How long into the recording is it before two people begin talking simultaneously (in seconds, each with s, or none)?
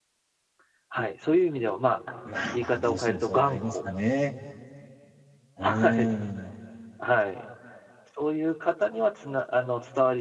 2.5 s